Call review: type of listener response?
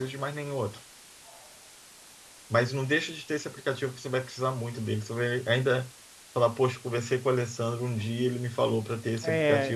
taking over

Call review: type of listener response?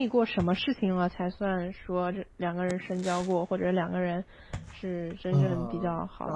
taking over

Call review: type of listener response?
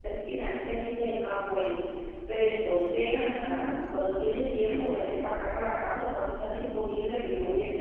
taking over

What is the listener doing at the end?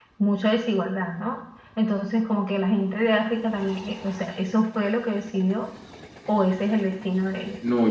taking over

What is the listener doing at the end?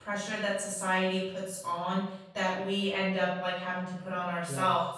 listening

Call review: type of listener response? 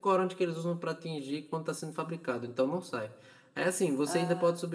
listening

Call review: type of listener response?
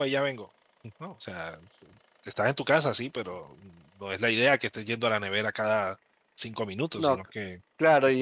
taking over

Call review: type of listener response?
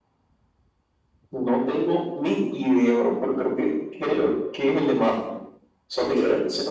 taking over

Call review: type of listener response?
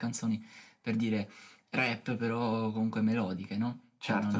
taking over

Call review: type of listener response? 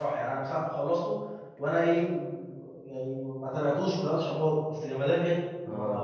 taking over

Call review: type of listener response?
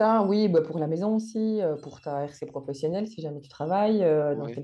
listening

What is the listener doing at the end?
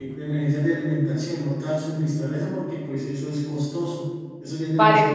taking over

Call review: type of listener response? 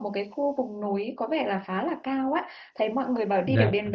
listening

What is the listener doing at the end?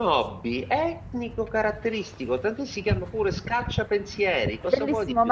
taking over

